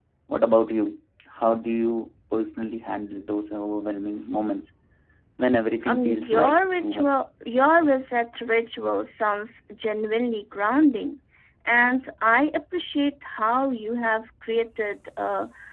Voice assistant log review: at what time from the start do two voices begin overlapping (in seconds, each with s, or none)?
5.9 s